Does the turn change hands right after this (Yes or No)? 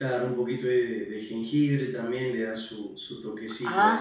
Yes